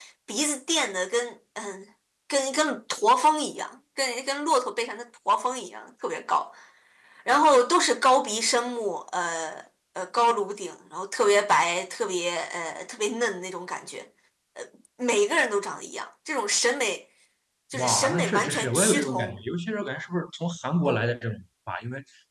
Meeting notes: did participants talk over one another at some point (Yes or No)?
Yes